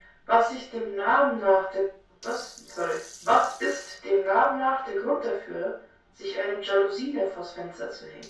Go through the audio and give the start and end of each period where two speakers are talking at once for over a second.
none

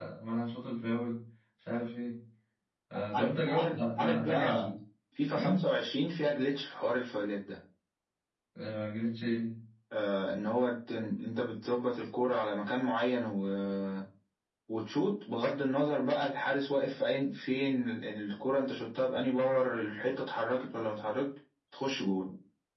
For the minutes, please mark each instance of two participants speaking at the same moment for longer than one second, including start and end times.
3.1-4.7

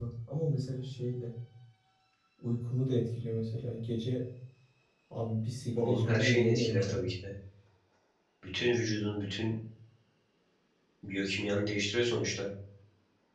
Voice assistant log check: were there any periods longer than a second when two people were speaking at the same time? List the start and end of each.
5.8-7.0

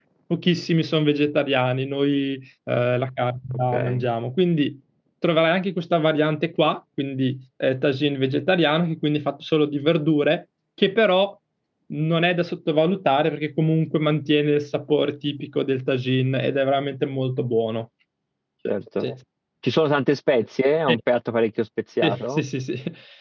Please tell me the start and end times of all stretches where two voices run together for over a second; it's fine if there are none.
none

